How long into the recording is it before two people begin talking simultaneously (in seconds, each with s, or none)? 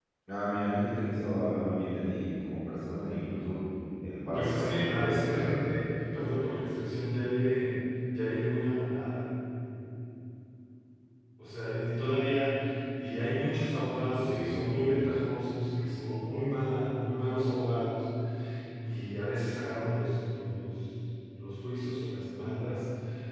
4.3 s